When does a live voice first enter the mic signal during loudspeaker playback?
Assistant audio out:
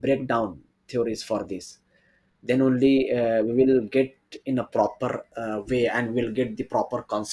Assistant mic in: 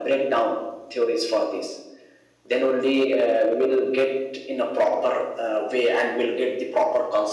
none

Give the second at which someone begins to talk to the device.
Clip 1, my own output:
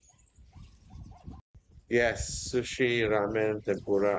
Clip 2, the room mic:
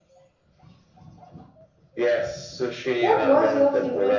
3.0 s

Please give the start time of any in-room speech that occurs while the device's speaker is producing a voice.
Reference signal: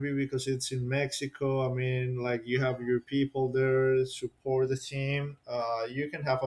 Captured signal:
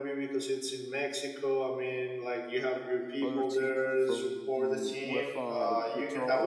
3.2 s

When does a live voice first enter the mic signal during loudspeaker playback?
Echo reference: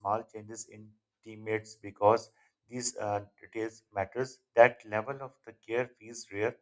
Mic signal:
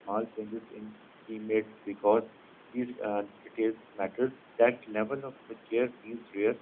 none

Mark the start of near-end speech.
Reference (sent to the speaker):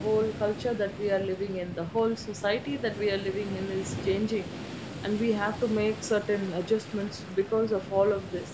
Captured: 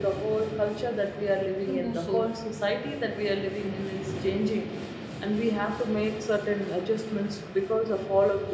1.6 s

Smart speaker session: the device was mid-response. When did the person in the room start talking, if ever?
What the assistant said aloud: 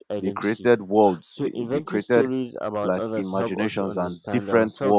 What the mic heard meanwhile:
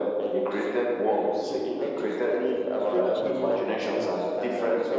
2.8 s

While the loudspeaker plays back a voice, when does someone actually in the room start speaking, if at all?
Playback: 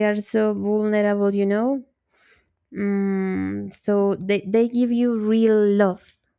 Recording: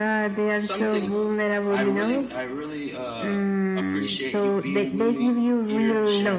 0.6 s

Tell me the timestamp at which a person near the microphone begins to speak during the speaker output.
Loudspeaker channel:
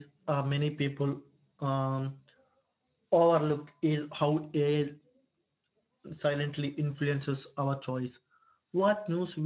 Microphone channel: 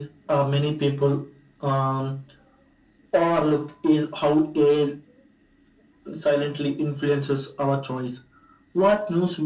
none

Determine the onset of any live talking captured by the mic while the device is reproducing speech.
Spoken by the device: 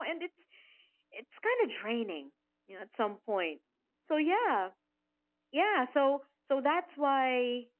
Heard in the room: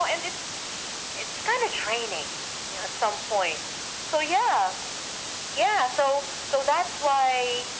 none

